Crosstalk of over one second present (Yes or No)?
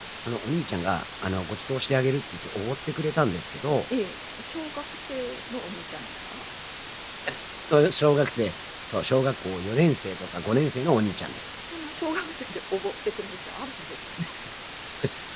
No